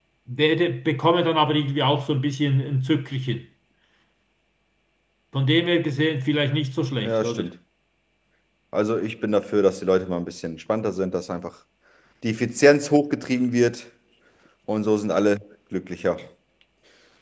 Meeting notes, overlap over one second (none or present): none